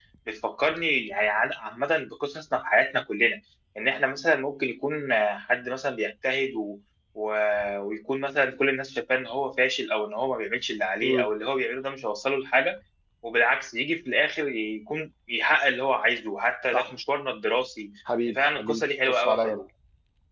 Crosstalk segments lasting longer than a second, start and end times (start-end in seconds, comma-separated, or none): 18.4-19.6